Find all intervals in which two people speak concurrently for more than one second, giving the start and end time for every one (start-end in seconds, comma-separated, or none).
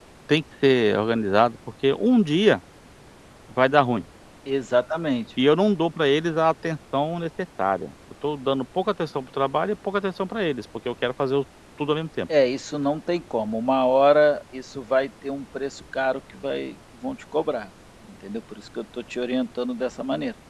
none